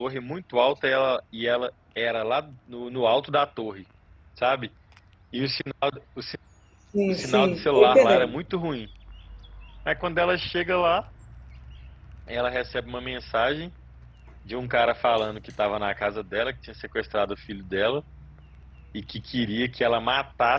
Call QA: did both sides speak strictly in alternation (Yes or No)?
No